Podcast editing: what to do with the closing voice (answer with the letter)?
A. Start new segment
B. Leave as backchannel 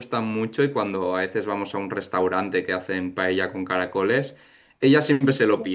B